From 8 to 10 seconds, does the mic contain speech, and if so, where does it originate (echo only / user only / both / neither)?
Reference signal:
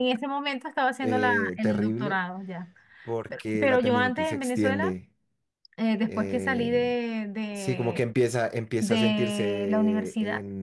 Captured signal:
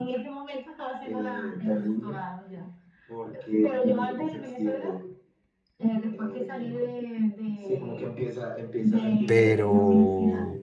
both